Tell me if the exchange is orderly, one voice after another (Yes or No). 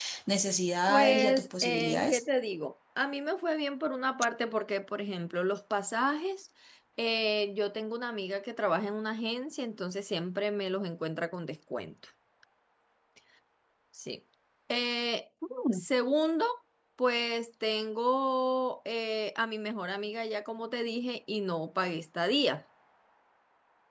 No